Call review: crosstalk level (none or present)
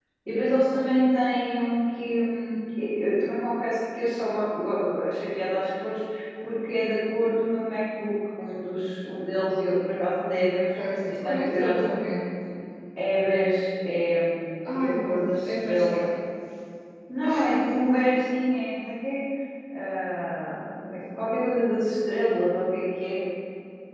present